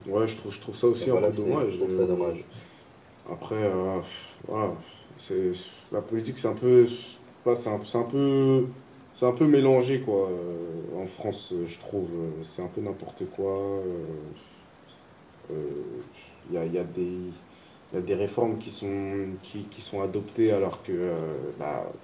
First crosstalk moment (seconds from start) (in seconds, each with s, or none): 1.0 s